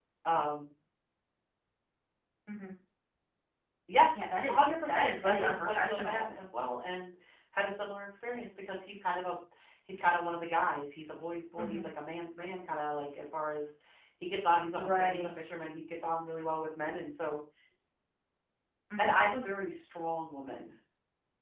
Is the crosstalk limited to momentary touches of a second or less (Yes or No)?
No